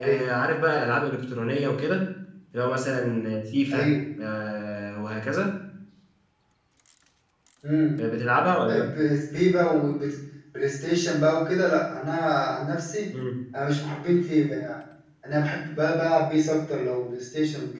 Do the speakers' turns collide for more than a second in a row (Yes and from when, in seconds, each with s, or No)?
No